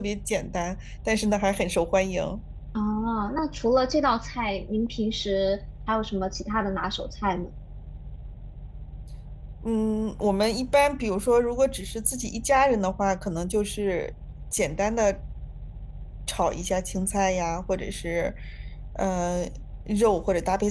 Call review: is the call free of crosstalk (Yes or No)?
Yes